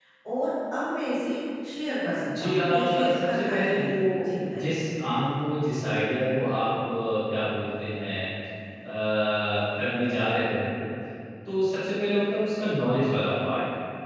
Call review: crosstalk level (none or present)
present